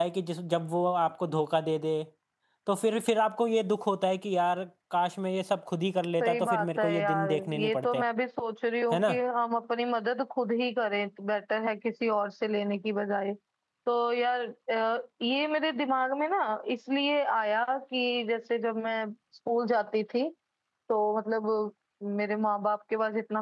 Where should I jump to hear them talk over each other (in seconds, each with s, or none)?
6.2 s